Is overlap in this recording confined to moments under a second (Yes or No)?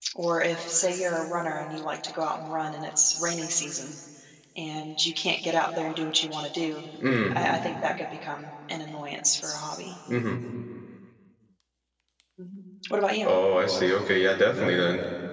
Yes